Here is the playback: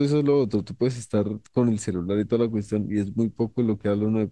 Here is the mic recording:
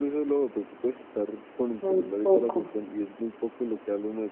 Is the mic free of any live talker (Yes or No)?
No